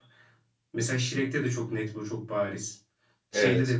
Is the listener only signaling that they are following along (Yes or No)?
Yes